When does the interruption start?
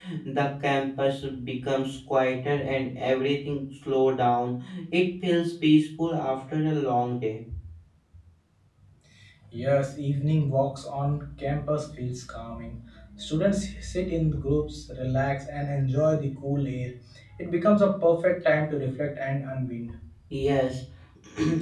none

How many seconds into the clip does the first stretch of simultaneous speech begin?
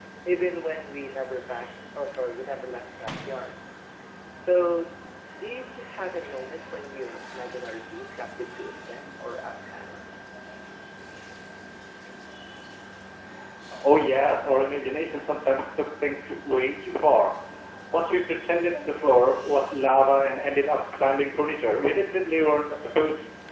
none

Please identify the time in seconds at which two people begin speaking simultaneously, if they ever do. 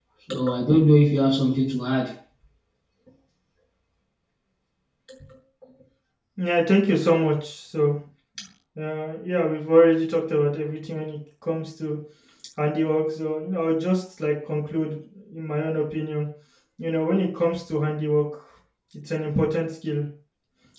none

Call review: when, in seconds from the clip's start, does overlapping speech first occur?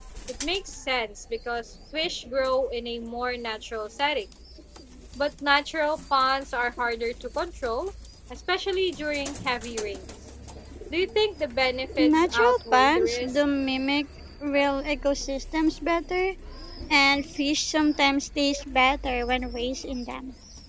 12.0 s

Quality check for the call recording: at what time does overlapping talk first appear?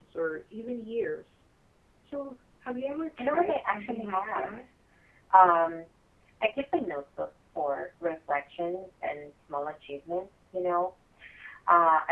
3.2 s

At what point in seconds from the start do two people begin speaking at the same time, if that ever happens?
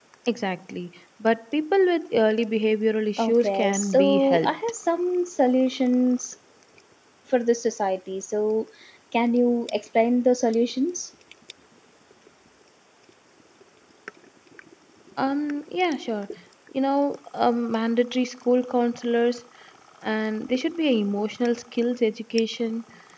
3.2 s

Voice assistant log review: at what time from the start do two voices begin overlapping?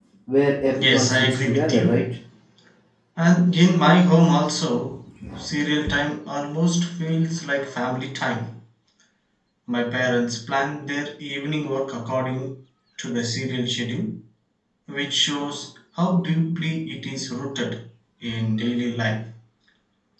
0.7 s

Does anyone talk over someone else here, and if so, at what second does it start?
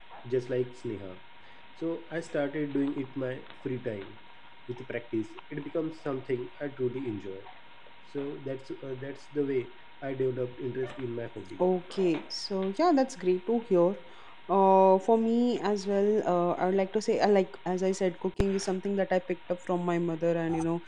none

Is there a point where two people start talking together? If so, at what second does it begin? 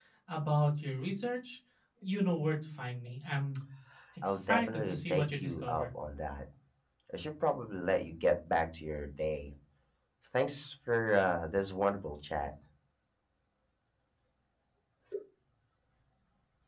4.2 s

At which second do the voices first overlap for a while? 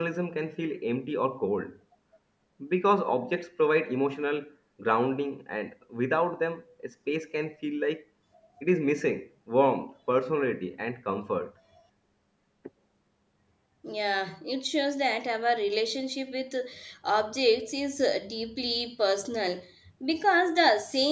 none

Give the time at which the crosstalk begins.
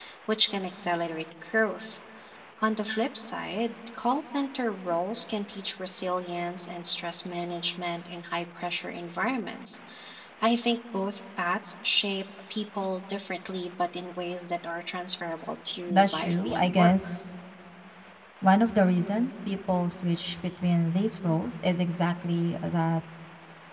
15.9 s

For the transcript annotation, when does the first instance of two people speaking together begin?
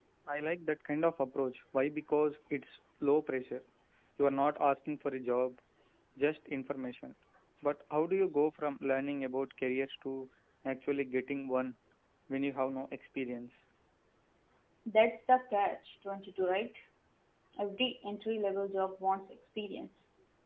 none

